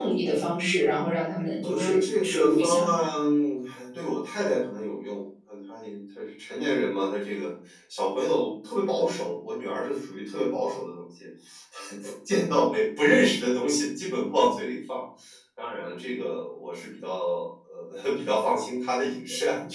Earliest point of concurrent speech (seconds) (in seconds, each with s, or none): 1.6 s